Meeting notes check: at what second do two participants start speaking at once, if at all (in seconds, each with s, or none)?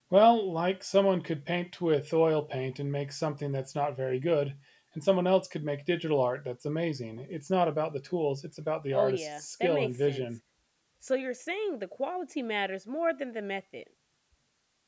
8.9 s